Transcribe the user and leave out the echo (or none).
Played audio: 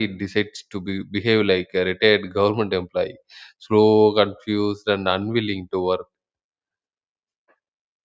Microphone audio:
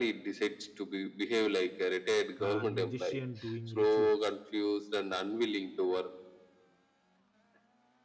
uh, magician doing rituals.